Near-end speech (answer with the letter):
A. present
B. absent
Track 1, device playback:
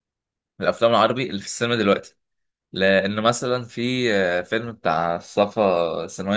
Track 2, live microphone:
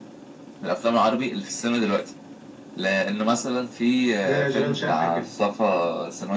A